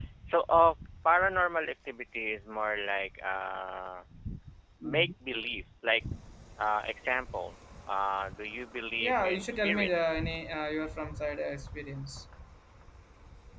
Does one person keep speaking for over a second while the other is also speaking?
Yes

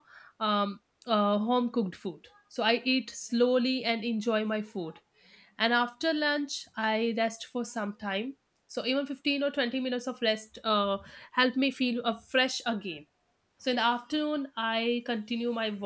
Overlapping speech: No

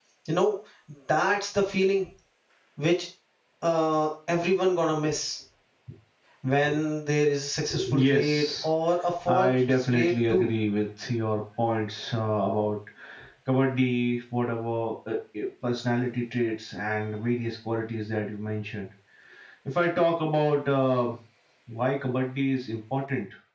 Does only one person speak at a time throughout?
No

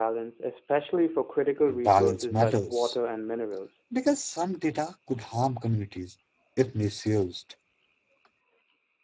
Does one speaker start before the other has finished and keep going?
Yes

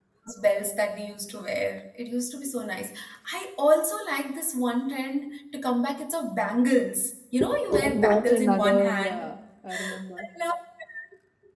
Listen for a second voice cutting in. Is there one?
Yes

